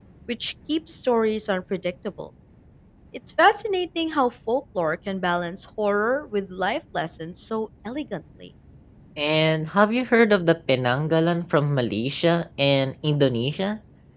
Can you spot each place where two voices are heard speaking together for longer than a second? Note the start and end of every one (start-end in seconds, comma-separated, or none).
none